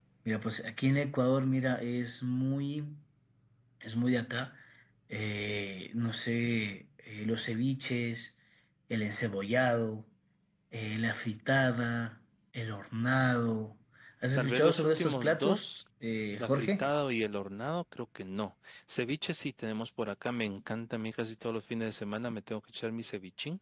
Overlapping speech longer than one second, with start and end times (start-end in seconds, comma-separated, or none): 14.4-15.6